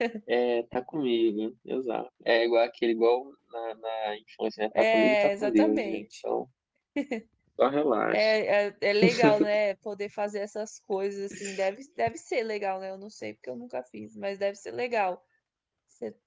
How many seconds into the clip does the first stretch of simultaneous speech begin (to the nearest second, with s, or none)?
5 s